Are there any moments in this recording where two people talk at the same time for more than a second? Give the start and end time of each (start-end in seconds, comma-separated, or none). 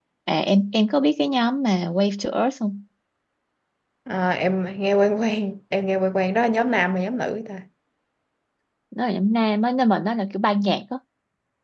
none